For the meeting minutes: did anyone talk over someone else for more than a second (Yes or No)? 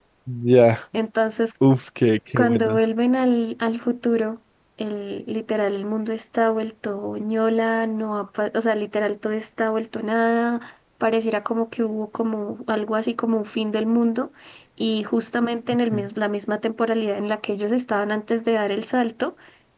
No